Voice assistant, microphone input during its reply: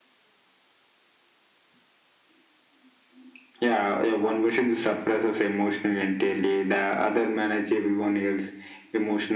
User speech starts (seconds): none

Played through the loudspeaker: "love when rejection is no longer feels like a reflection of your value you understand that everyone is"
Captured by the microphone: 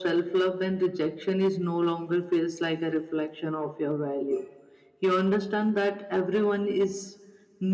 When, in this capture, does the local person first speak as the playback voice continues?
none

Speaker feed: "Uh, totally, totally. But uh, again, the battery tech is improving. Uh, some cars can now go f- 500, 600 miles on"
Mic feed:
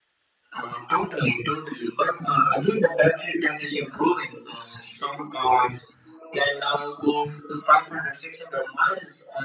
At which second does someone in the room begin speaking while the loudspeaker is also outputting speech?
none

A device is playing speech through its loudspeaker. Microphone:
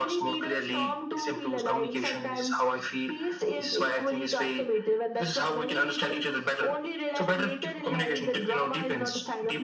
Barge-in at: none

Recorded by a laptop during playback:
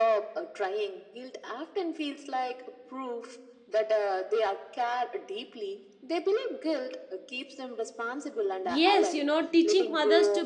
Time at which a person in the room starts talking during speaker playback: 9 s

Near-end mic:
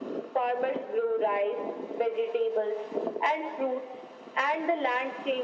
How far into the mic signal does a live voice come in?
none

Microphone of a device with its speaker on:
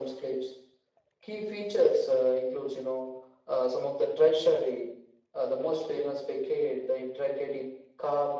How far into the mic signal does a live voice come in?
none

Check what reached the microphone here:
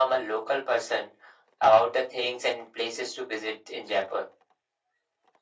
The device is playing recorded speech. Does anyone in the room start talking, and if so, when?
none

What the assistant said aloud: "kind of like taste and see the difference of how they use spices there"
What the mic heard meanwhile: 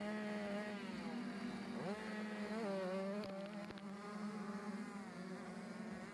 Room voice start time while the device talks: none

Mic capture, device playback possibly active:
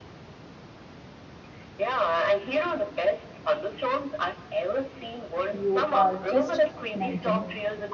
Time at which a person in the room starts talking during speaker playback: 6 s

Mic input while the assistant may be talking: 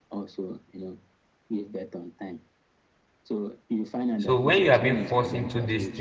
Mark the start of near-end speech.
4 s

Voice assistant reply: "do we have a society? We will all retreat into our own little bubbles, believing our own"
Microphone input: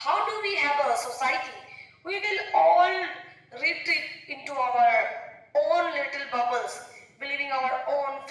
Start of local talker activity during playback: none

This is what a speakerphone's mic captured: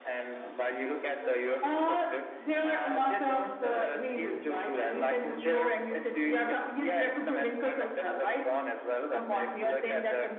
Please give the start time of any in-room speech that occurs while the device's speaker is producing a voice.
none

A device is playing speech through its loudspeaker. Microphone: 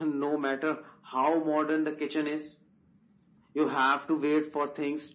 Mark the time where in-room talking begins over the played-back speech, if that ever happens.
none

